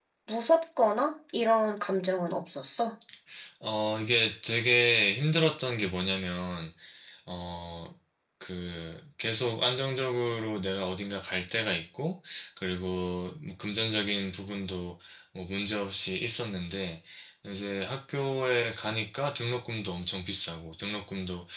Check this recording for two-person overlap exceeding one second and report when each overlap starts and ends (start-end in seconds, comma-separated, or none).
none